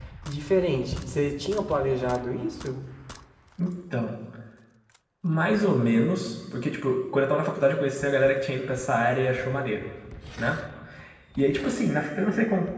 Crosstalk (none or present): none